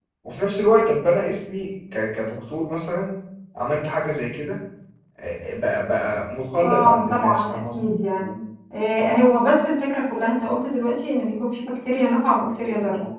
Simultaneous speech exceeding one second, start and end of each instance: 6.6-7.9

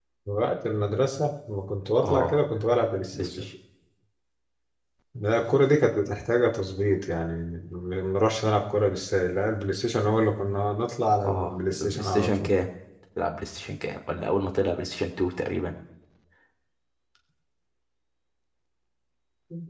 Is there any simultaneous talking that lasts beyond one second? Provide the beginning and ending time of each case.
11.2-12.5

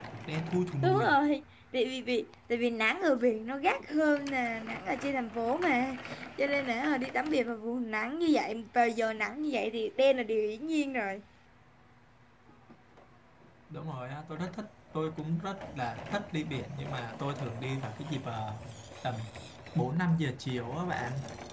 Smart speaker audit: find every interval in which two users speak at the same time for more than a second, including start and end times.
none

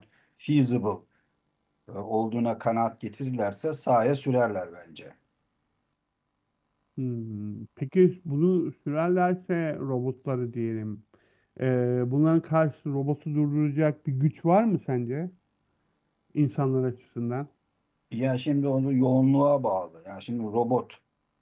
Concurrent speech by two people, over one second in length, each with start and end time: none

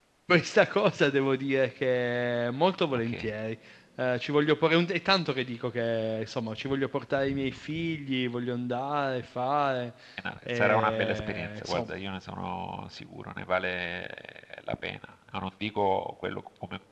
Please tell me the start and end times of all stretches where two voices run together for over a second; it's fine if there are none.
10.5-11.9

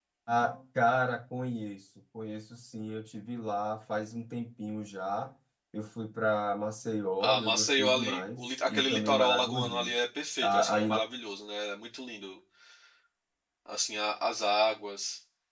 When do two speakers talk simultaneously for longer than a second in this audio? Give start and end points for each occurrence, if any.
7.2-9.9

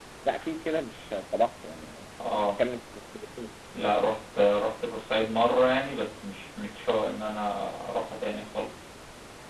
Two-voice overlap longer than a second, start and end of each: none

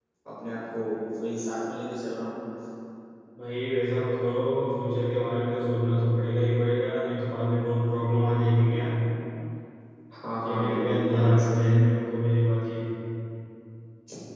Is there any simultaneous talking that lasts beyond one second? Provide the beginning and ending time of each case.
10.4-11.8

